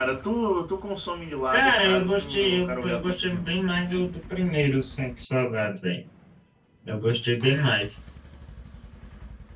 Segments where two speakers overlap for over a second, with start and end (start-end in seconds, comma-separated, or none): 1.5-3.6